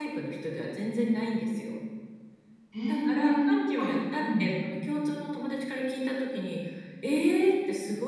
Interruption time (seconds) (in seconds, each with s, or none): 2.9 s